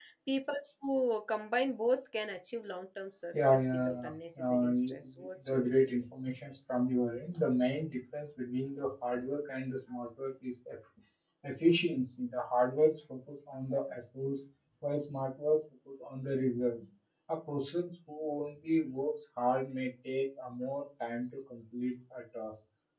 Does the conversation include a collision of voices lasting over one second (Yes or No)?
Yes